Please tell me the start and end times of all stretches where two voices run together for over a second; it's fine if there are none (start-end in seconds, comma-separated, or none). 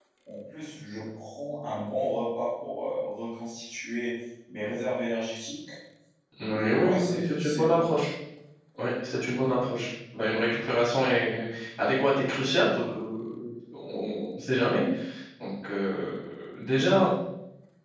6.5-7.8